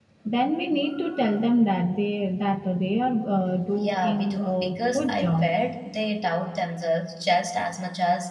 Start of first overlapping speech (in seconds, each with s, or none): 3.8 s